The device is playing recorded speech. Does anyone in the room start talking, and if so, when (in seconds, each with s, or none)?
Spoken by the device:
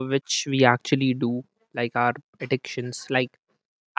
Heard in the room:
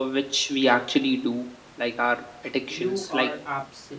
2.7 s